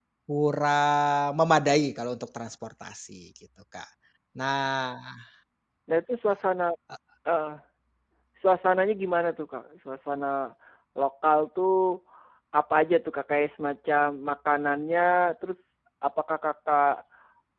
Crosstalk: none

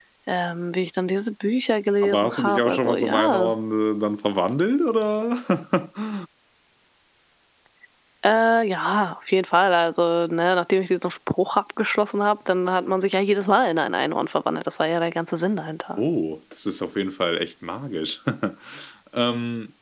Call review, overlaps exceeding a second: present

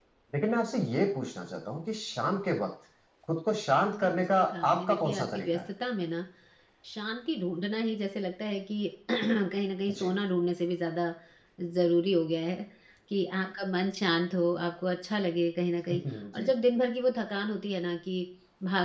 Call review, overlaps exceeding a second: present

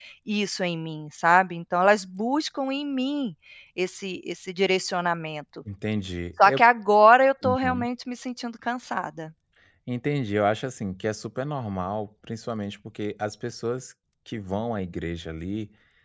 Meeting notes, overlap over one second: none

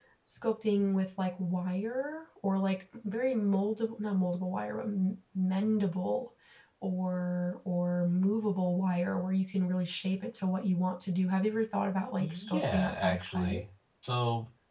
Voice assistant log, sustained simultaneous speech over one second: present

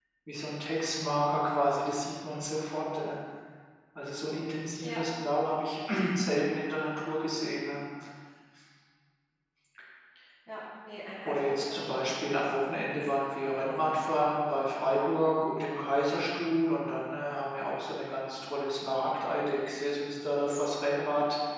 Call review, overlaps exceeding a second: present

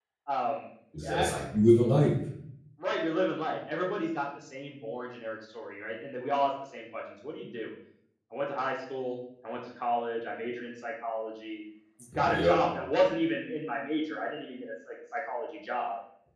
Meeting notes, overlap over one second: none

